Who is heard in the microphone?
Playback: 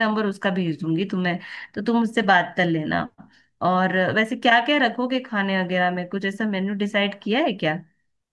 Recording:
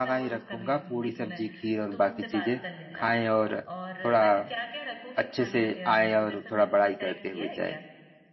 both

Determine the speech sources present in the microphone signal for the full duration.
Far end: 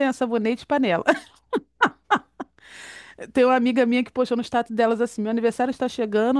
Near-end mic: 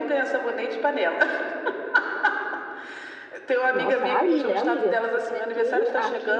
both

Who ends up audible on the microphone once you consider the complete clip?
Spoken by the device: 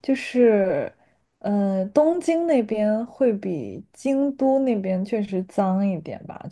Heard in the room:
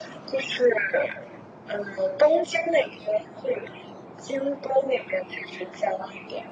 echo only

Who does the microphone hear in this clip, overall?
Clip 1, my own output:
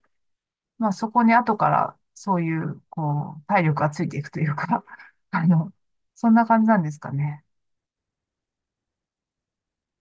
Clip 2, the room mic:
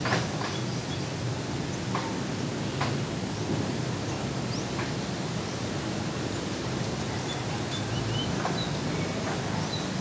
neither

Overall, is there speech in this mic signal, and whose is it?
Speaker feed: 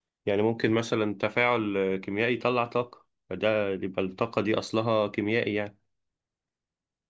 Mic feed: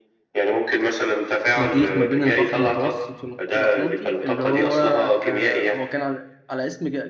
both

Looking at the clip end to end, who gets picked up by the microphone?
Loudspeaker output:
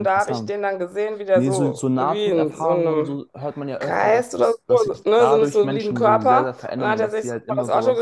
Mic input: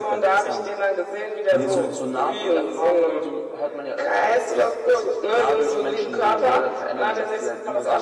both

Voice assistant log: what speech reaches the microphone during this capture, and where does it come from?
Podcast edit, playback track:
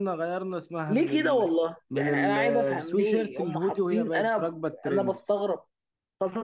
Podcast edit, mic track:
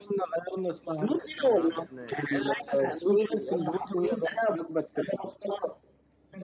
both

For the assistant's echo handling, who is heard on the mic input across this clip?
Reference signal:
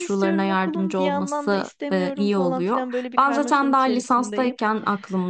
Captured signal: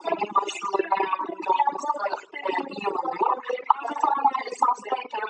echo only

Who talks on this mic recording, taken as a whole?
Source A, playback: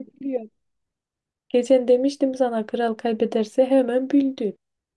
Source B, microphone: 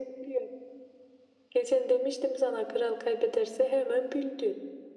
echo only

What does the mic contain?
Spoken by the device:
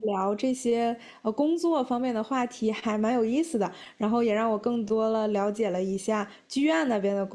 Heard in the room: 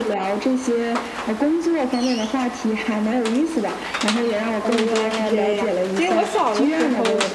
both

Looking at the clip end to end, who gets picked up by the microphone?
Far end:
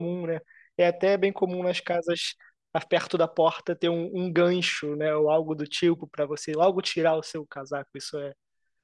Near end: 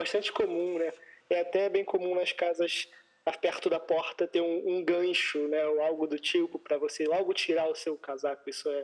echo only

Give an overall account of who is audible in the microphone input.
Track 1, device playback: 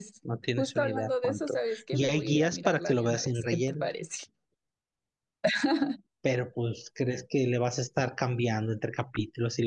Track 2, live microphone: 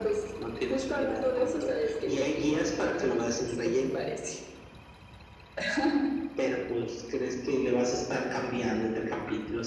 echo only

